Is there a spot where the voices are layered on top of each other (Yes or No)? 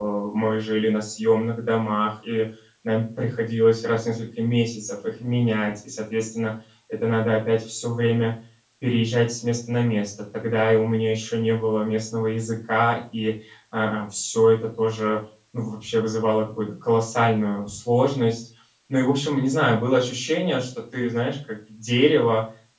No